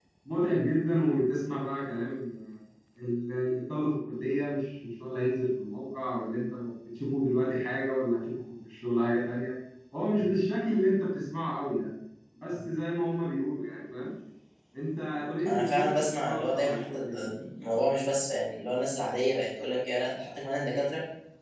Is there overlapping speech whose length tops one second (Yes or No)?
Yes